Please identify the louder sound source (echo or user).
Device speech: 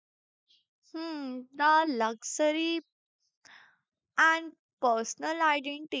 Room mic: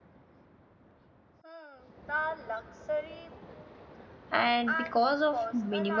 user